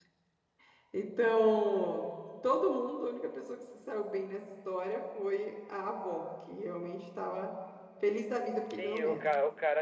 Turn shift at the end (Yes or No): Yes